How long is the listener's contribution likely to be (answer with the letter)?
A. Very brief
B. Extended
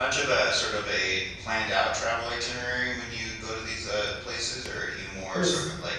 A